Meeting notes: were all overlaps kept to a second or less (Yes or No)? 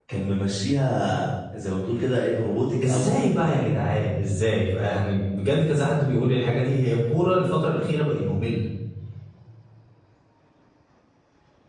Yes